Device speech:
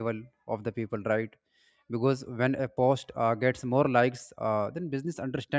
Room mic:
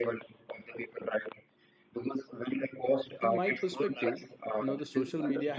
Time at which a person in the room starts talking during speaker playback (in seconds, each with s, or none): 3.2 s